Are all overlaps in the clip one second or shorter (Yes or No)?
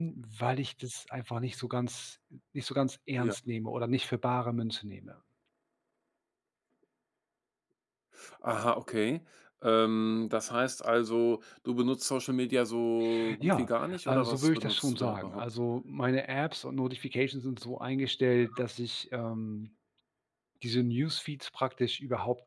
No